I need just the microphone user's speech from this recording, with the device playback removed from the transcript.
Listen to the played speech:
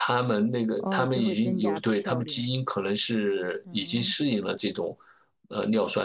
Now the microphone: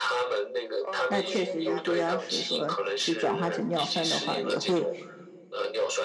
那确实，如果要是说就转化成尿酸的话，也会

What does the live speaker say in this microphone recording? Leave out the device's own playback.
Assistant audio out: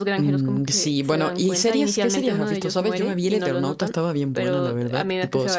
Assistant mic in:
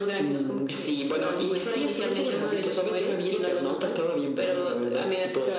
none

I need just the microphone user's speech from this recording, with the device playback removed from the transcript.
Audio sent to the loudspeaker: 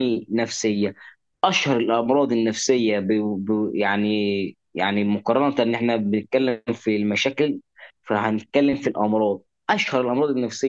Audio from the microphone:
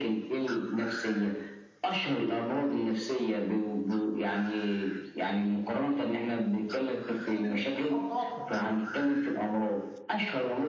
نفترض الاسترس او التوتر

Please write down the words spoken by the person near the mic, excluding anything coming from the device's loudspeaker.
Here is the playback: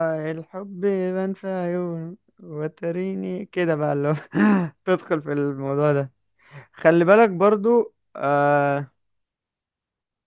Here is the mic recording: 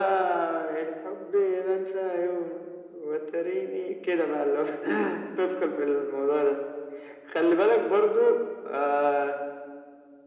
none

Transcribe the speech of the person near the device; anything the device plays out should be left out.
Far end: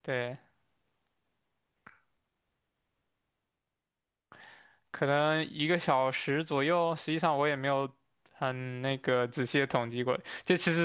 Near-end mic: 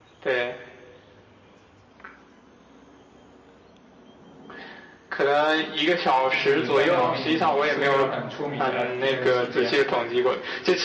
就是半条命，是一个很出名的 FPS 系列嘛。

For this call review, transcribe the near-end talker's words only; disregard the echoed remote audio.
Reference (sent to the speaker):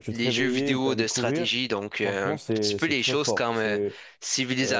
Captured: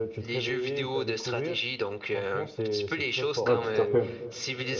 ouais, tout à fait.

